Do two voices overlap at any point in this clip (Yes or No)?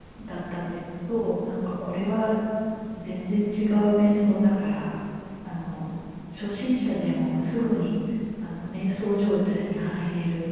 No